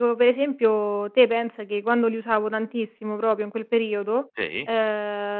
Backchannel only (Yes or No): Yes